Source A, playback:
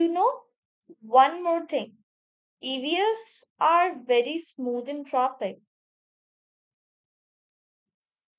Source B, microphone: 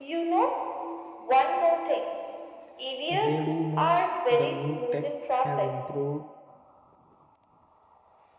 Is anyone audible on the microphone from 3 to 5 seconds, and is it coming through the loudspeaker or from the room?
both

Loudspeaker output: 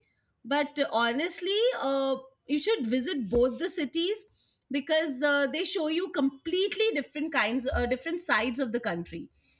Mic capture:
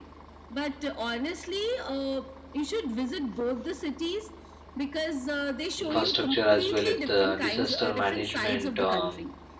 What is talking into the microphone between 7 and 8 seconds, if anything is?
both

